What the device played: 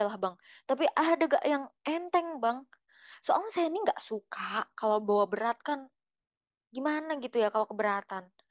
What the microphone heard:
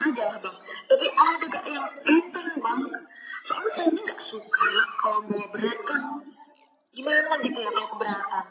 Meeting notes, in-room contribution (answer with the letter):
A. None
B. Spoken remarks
A